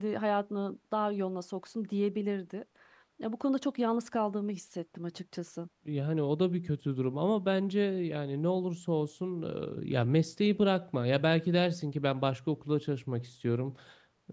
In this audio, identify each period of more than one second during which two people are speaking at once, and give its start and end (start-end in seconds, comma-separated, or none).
none